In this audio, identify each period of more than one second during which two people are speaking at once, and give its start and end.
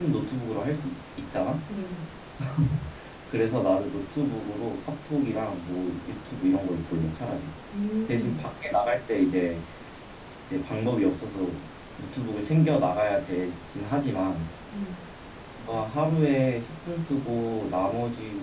none

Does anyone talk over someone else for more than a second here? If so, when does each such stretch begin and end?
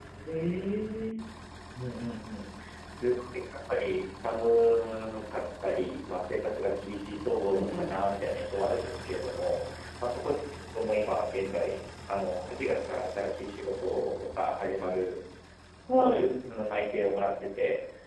none

